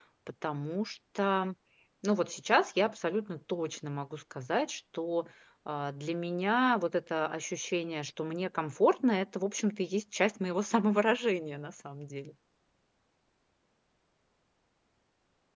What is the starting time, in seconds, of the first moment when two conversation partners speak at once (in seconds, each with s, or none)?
none